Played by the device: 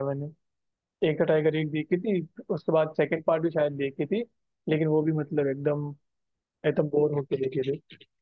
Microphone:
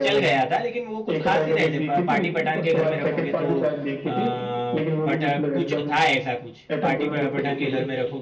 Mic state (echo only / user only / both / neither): both